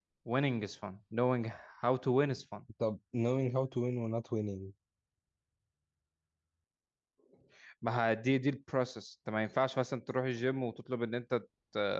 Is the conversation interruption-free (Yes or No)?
Yes